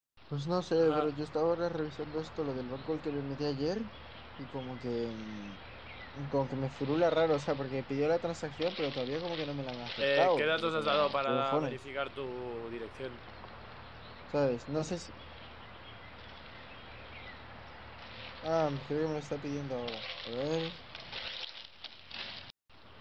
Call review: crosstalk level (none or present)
present